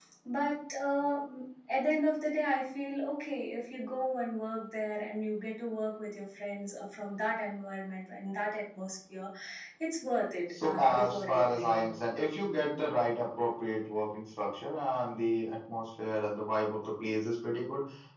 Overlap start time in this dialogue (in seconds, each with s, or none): 10.6 s